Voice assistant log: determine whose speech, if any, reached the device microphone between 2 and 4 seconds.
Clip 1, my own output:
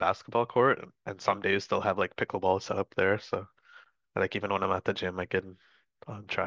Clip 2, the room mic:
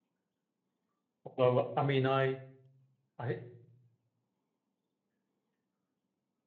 user only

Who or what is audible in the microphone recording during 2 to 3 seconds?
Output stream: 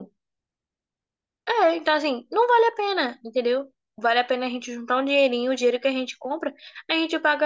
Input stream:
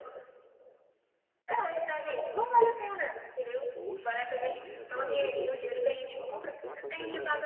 echo only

